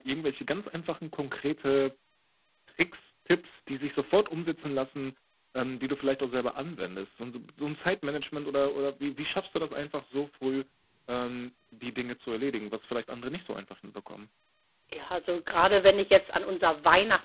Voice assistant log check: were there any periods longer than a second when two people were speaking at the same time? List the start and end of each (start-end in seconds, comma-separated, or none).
none